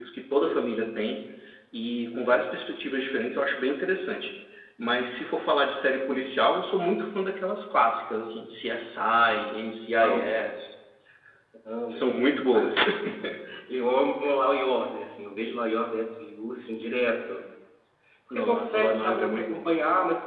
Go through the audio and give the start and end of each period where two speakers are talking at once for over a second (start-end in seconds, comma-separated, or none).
18.4-19.7